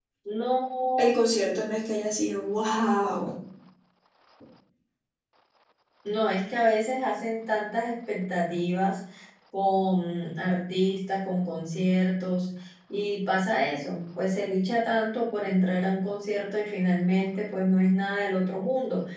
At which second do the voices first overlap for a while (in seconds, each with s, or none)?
none